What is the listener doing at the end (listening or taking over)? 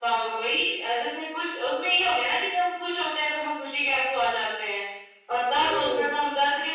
listening